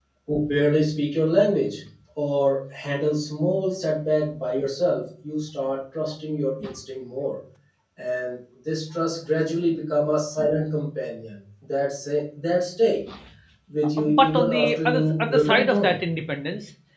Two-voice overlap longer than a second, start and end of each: 14.0-16.0

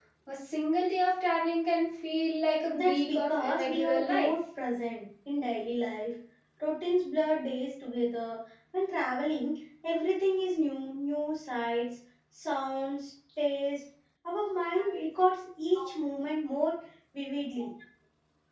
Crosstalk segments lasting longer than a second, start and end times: 2.7-4.3

